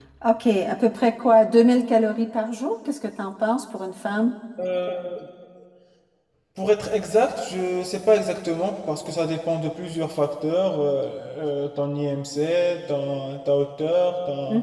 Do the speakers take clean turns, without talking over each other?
Yes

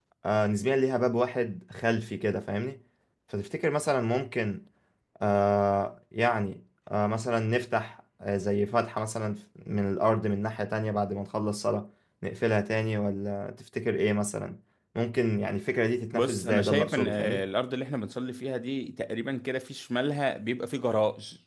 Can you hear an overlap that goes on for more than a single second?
Yes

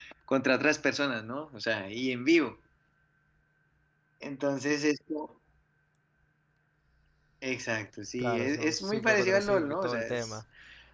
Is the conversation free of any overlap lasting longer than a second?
No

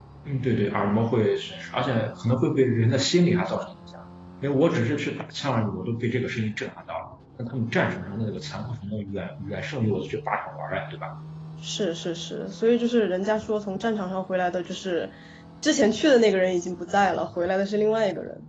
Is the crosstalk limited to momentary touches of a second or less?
Yes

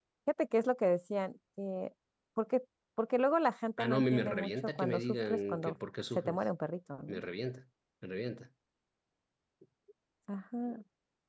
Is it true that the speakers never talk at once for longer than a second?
No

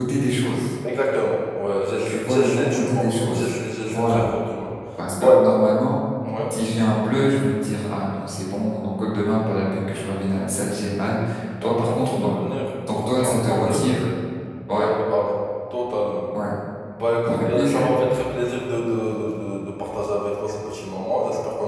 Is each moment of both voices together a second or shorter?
No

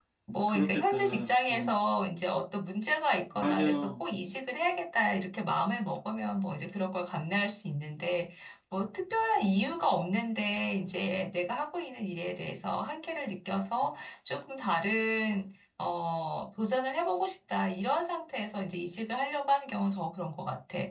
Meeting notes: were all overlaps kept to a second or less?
No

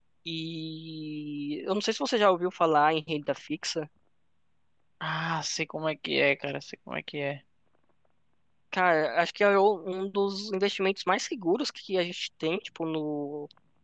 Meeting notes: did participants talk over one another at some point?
No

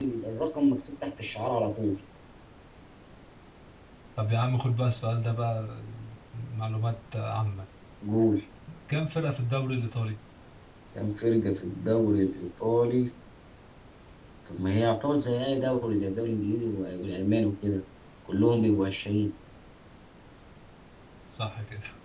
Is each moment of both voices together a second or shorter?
Yes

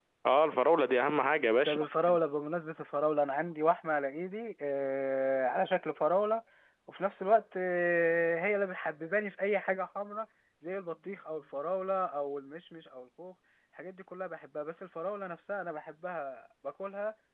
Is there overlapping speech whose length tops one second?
No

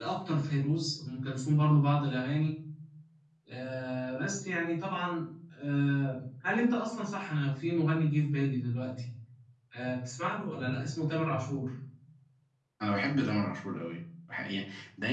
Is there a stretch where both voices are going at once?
No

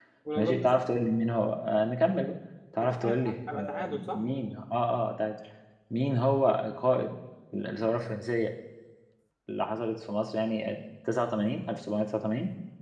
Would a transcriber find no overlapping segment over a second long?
No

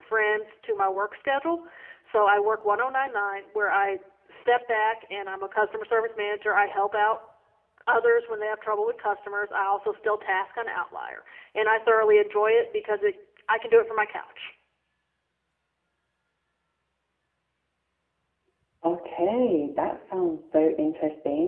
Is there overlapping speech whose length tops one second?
No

